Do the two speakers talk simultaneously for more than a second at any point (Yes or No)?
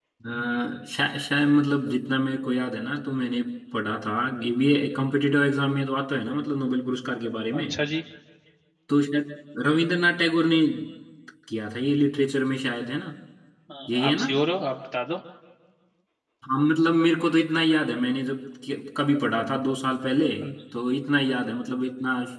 No